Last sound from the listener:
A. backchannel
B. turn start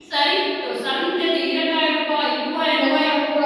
B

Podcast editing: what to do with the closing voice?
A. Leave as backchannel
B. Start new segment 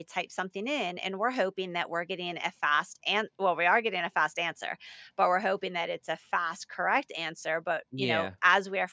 A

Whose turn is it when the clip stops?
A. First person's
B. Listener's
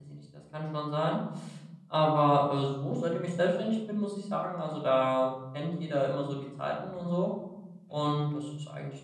A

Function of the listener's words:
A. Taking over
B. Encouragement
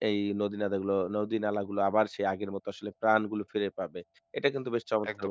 B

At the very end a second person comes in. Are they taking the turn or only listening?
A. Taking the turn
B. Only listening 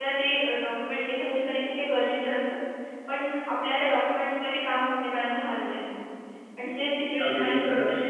B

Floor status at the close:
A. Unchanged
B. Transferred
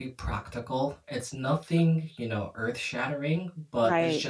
A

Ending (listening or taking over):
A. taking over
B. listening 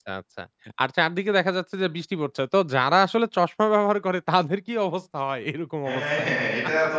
A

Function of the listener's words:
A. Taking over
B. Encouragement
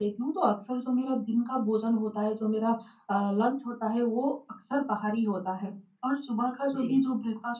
B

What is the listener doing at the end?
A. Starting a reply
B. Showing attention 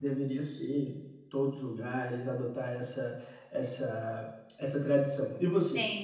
A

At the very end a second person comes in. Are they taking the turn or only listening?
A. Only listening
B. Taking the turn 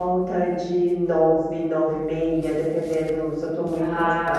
A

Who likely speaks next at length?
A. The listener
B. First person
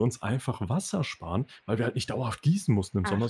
B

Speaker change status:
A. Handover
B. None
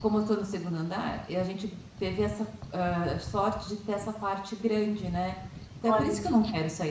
B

